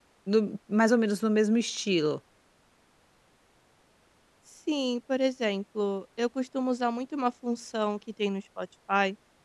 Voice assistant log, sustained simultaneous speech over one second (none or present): none